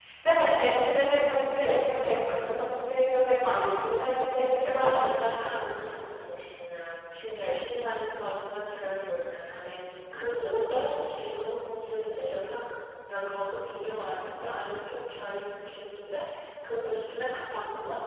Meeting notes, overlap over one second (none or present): none